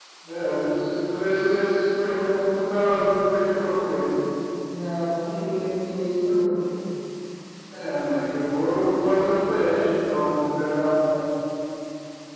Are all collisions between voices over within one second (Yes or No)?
Yes